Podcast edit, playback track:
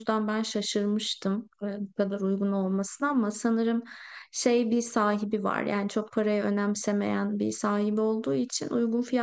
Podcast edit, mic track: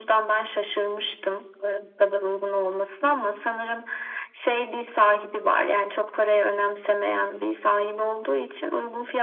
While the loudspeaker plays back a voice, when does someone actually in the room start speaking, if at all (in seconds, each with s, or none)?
none